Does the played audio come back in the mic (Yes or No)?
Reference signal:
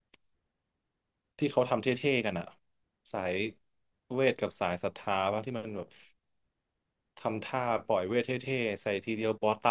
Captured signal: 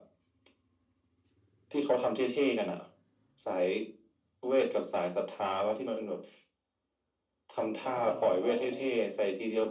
Yes